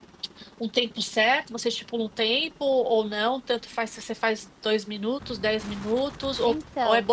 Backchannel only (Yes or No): Yes